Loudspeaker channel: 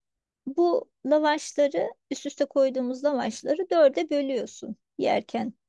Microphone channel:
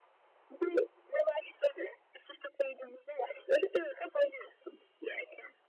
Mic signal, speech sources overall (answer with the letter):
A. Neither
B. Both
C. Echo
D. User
C